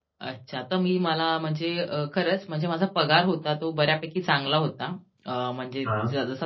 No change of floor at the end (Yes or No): Yes